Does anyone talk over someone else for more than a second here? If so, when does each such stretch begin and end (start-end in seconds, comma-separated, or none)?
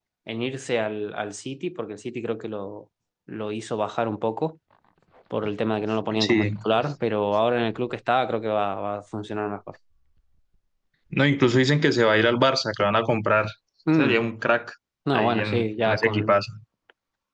15.1-16.4